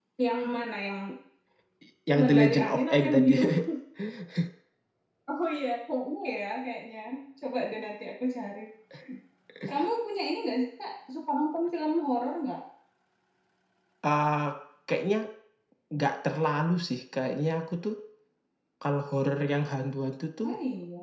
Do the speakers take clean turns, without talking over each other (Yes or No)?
No